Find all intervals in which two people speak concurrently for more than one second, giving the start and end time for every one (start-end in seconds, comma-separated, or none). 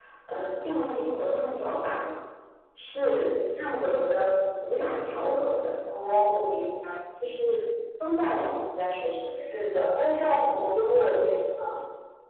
none